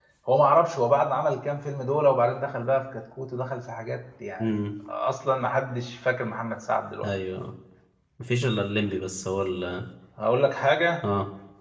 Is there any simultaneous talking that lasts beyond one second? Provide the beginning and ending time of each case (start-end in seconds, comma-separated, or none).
none